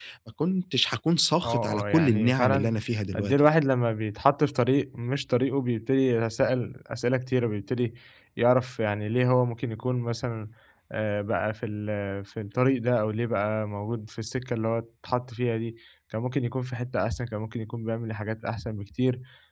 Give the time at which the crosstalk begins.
1.4 s

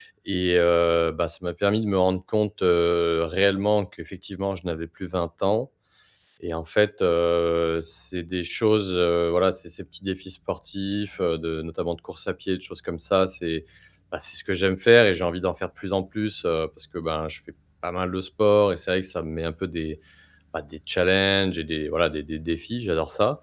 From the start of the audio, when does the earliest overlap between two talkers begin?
none

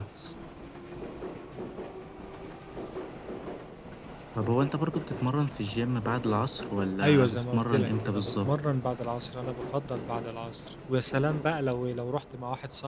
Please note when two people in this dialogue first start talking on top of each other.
7.0 s

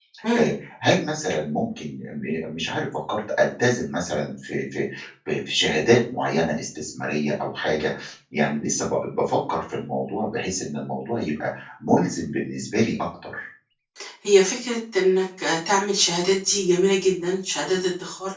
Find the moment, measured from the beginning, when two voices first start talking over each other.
none

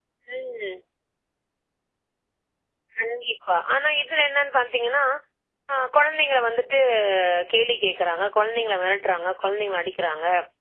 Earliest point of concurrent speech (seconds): none

